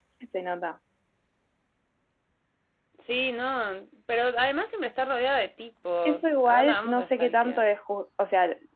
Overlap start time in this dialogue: 6.0 s

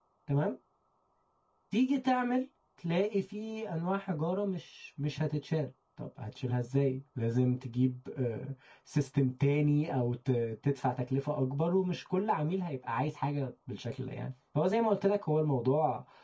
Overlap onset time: none

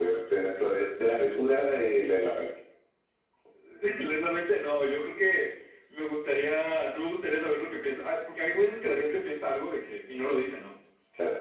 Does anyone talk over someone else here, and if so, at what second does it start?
none

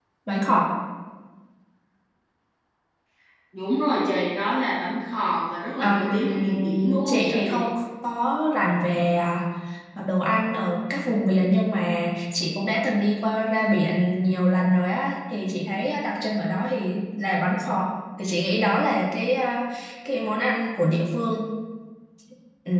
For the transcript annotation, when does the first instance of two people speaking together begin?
5.8 s

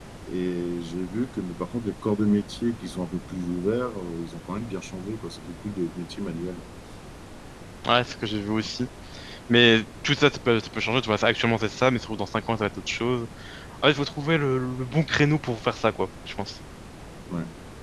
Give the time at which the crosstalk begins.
none

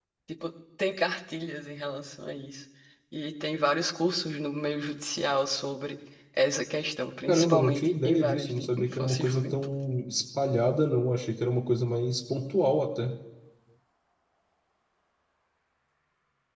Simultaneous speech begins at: 7.3 s

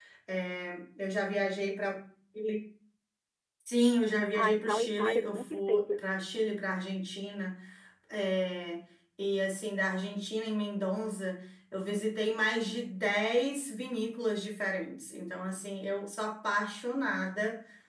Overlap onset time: 4.3 s

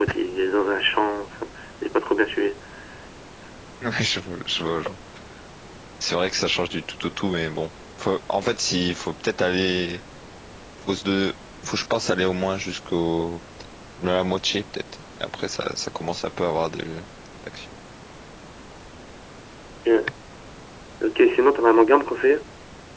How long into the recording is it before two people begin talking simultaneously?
none

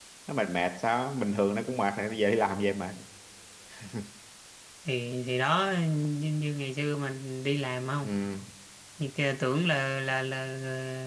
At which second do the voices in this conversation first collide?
none

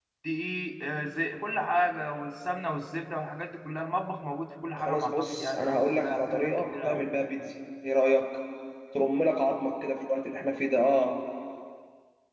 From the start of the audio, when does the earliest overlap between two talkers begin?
4.8 s

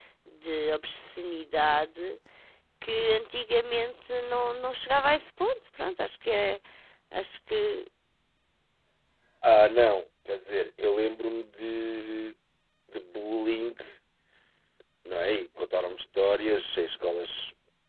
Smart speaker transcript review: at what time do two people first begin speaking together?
none

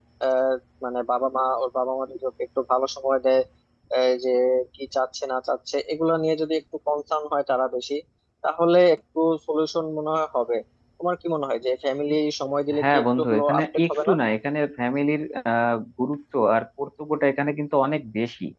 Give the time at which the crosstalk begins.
12.7 s

